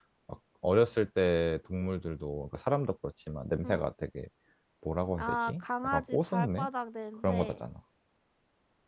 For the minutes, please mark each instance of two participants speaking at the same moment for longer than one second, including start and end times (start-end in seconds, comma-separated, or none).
5.2-6.7